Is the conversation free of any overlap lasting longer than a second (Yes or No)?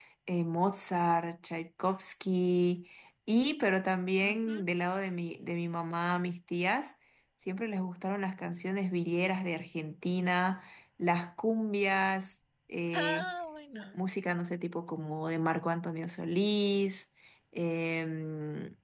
Yes